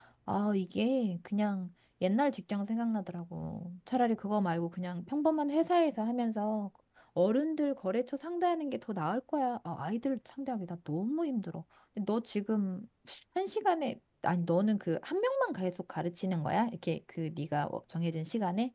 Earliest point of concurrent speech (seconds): none

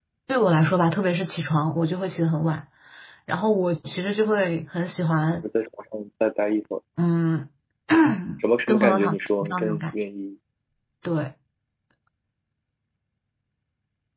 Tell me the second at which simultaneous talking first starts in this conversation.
8.7 s

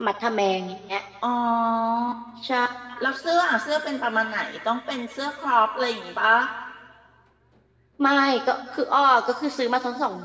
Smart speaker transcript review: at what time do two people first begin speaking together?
none

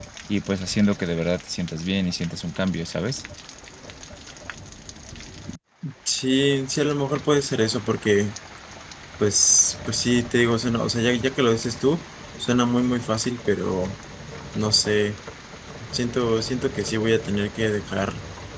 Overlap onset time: none

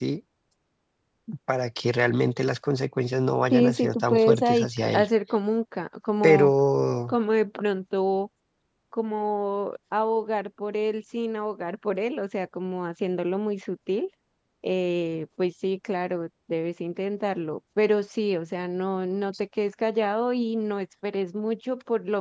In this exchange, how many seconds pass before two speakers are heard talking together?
3.5 s

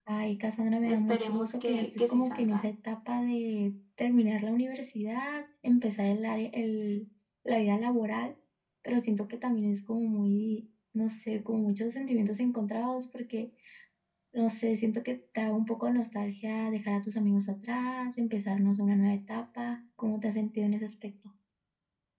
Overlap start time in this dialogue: 0.8 s

